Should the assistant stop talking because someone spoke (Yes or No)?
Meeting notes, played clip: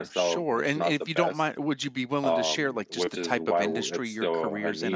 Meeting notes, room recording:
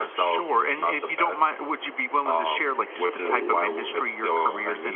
No